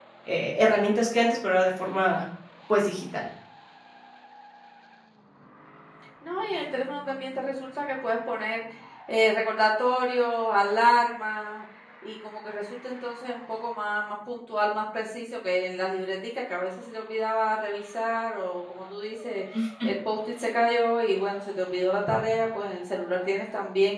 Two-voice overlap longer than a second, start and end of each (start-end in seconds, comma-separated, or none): none